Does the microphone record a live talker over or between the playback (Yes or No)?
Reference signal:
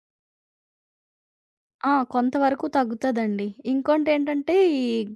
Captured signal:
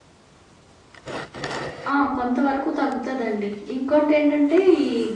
No